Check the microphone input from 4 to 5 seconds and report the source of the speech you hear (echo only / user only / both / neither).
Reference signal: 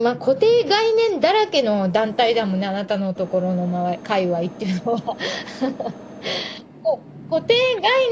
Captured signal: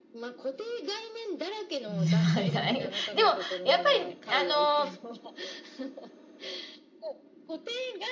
both